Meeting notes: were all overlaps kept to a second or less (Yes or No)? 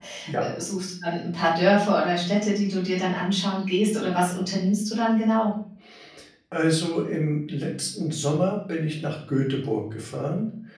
Yes